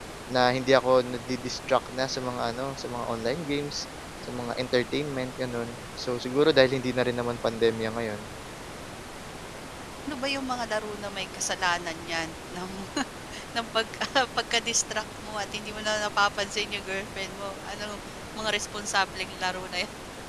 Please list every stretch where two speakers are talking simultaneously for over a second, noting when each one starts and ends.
none

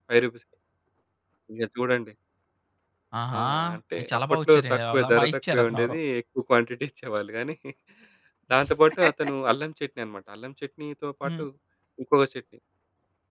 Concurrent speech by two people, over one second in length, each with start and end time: 4.0-6.0

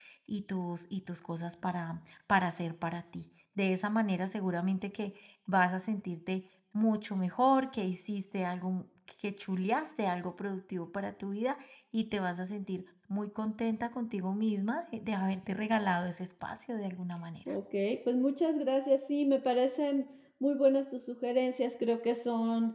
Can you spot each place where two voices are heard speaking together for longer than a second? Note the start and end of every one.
none

